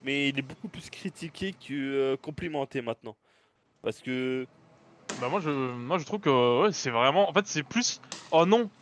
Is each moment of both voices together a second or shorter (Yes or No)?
Yes